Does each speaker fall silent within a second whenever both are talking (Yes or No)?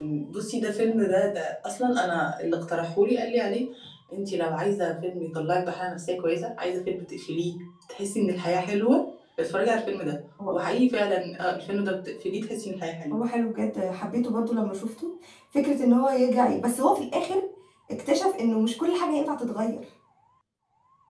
Yes